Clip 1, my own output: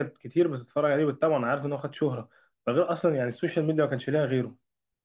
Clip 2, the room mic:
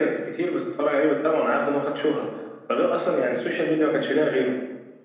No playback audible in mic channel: No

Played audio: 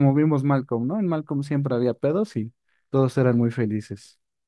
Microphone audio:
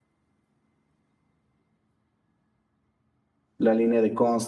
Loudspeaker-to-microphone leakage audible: No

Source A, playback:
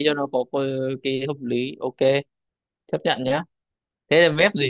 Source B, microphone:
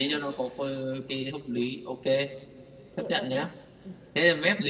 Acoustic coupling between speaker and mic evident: Yes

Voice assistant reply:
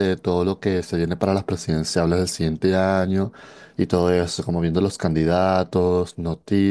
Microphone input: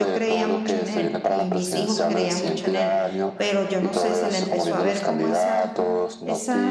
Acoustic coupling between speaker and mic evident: Yes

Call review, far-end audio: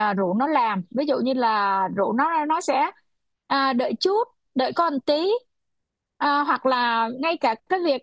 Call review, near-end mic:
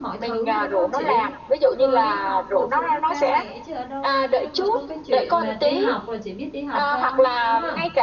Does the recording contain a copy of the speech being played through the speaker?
Yes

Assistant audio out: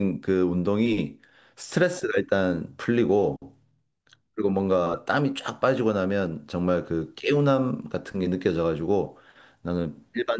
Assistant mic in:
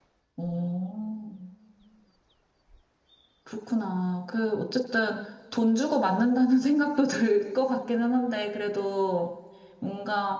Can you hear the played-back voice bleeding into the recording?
No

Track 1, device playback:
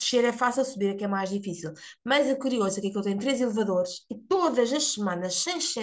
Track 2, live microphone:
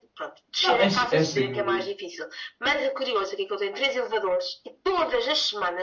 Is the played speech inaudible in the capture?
No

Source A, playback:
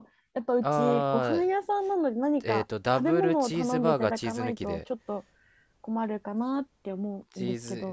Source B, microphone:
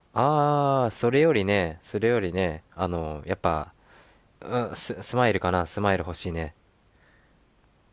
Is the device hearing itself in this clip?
No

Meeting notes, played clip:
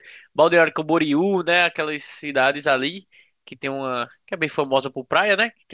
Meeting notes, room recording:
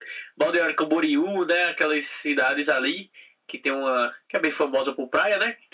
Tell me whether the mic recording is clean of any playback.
No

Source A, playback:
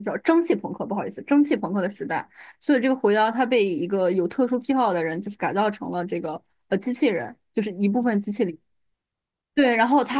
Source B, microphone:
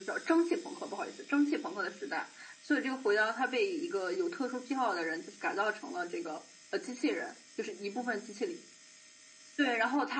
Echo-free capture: No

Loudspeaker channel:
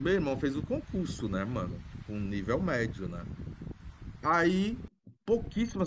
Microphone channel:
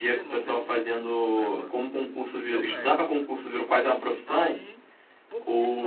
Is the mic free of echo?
No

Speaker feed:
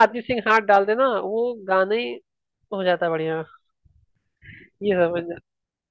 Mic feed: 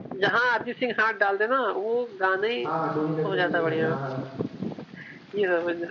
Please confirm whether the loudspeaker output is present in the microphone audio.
Yes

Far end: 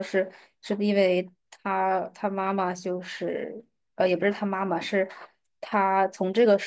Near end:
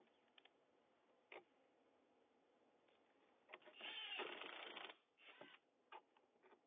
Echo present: No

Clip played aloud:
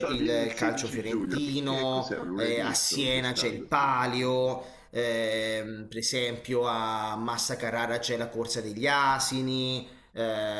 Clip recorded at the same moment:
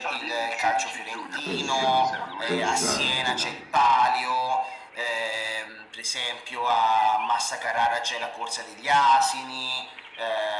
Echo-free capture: No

